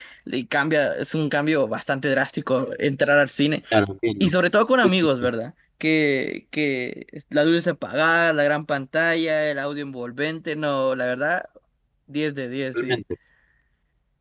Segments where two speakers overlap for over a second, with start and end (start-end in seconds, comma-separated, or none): none